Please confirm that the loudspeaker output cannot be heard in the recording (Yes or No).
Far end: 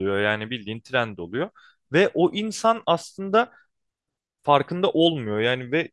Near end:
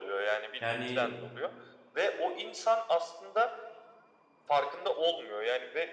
No